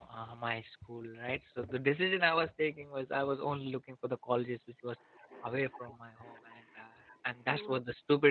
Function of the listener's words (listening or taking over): taking over